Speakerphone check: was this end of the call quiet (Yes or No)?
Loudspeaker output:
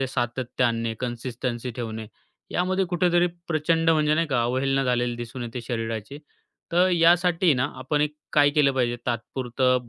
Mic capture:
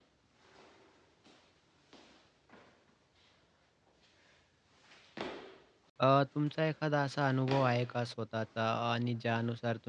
No